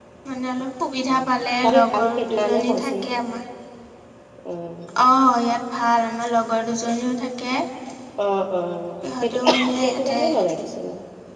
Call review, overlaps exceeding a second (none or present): present